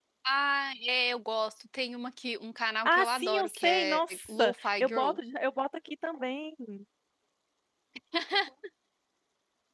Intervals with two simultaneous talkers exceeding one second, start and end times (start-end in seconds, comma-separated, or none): 2.9-5.2